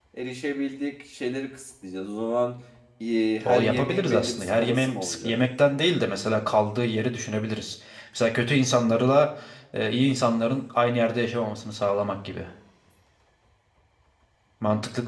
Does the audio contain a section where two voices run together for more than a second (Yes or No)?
Yes